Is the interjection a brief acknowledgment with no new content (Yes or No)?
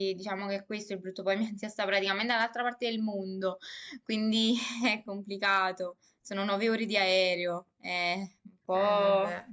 Yes